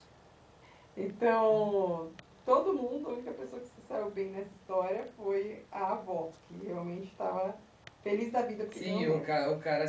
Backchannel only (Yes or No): No